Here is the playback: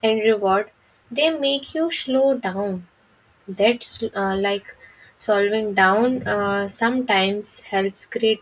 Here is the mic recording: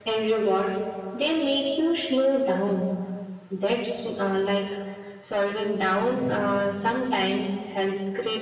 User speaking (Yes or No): No